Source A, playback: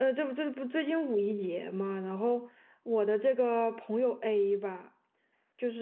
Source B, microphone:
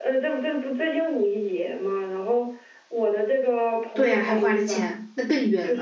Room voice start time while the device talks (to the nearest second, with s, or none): 4 s